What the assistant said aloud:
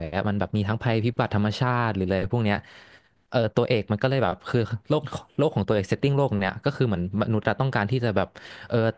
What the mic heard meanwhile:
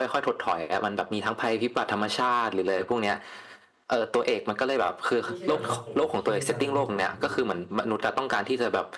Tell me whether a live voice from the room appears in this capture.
Yes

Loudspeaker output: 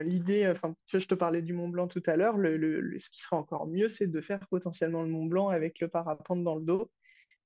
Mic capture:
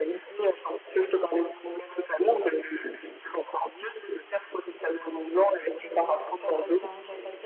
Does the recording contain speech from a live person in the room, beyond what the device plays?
Yes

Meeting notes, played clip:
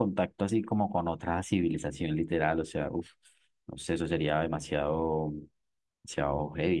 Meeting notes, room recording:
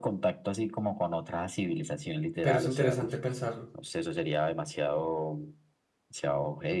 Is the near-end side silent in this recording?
No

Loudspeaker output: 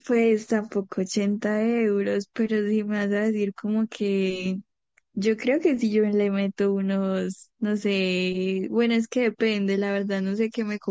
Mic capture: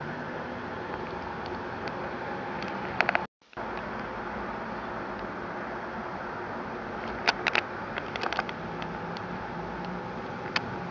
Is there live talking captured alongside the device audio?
No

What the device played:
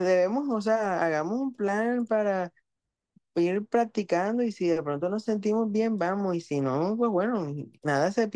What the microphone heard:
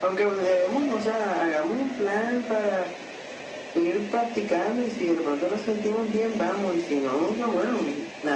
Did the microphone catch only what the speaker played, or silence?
Yes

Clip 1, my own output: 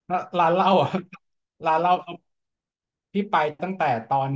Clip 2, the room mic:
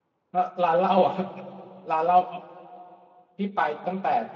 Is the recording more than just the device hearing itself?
No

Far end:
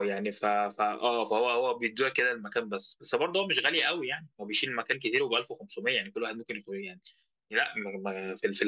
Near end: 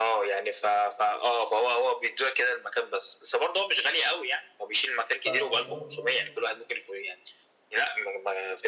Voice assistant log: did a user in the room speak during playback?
Yes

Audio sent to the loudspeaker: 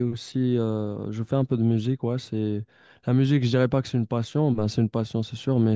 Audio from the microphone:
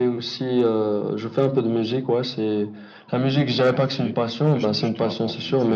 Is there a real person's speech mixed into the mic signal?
Yes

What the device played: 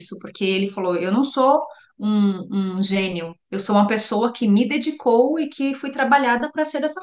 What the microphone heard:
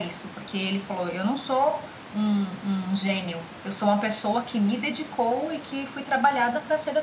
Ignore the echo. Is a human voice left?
No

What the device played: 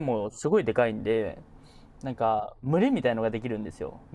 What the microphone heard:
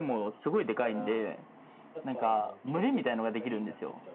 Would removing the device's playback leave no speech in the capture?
No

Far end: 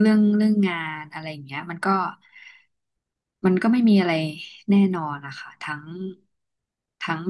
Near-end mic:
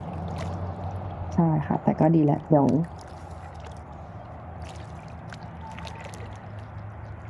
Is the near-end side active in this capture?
Yes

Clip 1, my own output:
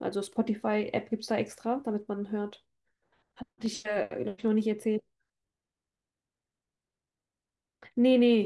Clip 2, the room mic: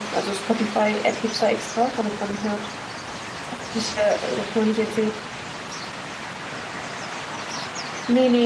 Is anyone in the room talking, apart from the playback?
No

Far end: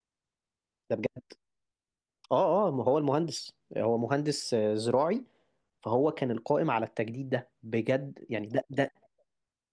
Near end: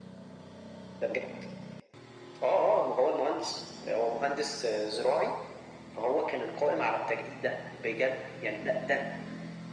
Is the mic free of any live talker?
Yes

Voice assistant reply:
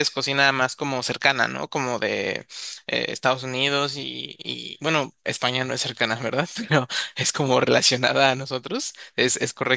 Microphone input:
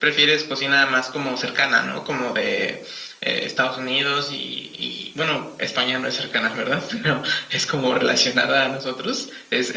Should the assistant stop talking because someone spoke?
No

